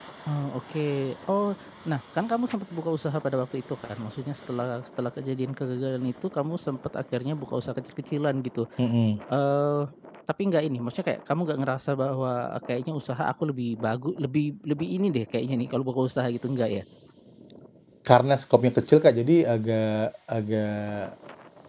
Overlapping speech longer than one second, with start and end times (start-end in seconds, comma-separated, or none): none